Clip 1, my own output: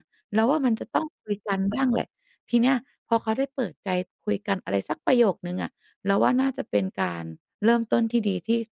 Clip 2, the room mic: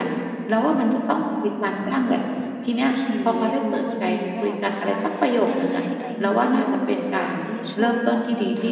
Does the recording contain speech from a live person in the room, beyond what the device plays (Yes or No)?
Yes